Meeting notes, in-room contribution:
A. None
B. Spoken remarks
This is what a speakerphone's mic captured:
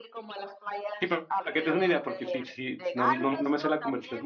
B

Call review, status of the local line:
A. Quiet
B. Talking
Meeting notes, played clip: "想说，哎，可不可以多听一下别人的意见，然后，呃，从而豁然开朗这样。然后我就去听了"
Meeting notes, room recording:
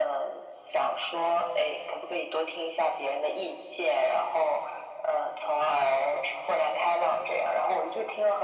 A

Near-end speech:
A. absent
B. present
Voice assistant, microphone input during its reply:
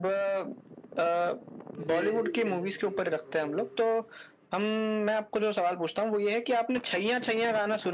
B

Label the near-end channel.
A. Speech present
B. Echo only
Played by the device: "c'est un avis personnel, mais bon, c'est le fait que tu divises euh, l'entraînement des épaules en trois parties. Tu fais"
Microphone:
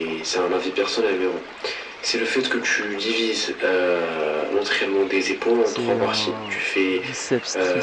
A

